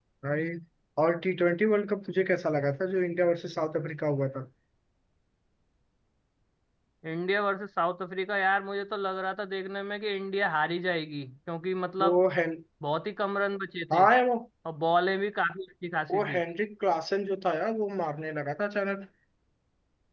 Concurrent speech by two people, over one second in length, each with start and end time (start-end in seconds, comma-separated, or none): none